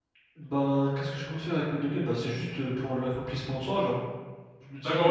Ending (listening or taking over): taking over